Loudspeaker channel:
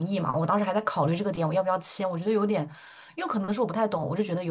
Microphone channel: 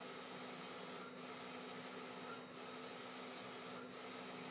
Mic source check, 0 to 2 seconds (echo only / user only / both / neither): neither